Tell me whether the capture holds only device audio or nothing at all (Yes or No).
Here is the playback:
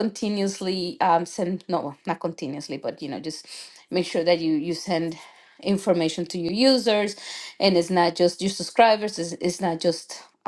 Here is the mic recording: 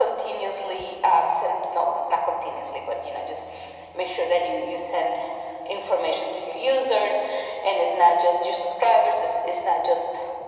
Yes